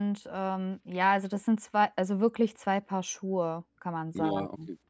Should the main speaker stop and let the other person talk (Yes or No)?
Yes